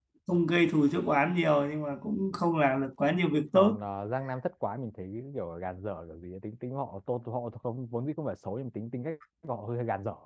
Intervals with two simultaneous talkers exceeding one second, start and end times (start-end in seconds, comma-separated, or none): none